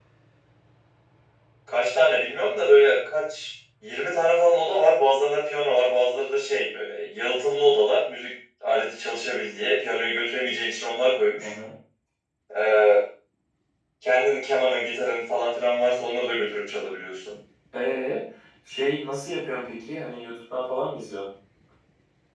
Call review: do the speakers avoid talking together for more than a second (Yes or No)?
Yes